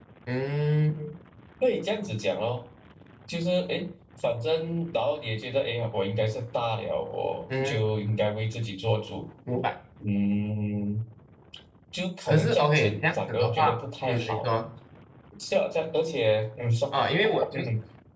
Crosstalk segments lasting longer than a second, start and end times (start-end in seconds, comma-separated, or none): 12.3-14.5